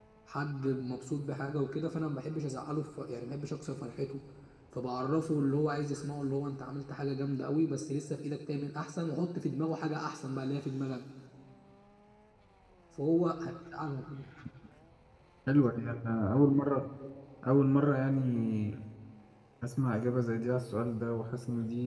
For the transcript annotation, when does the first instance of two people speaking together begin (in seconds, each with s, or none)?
none